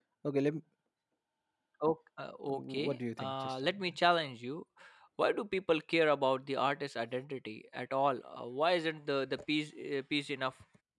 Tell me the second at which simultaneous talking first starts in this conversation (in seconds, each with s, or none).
2.5 s